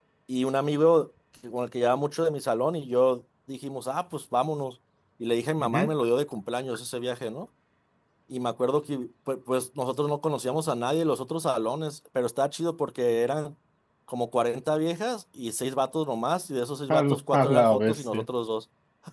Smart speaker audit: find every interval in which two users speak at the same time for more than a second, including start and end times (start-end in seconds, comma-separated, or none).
16.9-18.2